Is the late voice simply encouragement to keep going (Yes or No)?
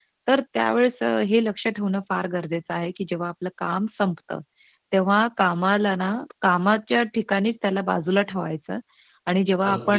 Yes